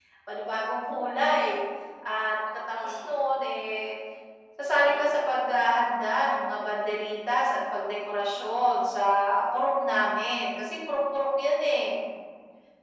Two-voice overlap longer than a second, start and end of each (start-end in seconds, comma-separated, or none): none